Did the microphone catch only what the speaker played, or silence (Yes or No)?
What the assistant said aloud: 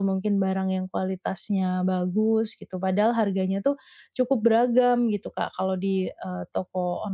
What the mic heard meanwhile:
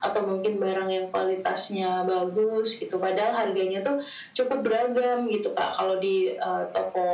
Yes